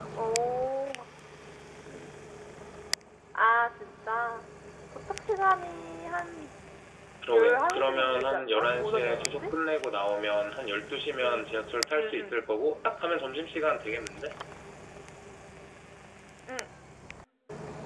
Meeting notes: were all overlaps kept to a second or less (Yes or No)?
No